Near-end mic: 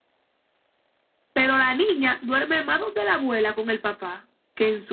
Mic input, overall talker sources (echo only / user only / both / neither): user only